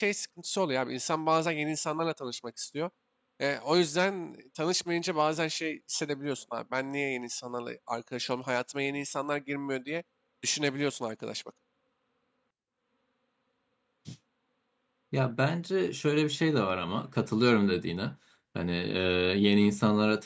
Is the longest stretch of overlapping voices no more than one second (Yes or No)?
Yes